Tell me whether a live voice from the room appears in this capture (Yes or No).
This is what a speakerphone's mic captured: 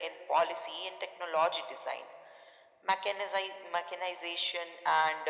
No